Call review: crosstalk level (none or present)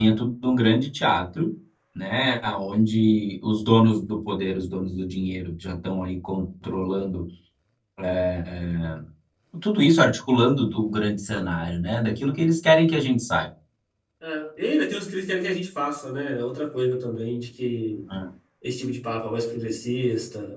none